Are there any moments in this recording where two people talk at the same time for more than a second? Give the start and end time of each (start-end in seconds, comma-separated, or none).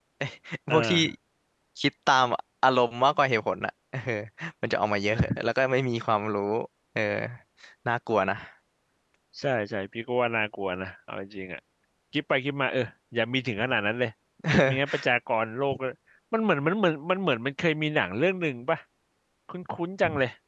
none